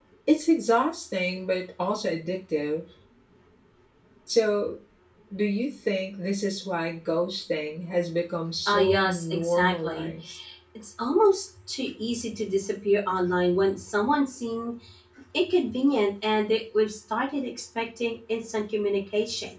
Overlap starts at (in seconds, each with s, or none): 8.7 s